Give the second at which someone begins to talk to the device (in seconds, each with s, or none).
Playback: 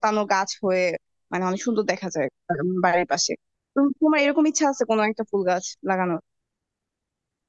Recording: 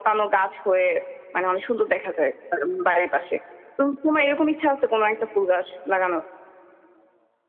none